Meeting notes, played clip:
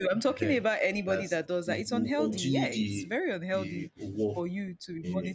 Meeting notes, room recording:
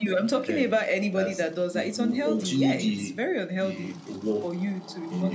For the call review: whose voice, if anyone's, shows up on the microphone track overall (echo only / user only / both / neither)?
both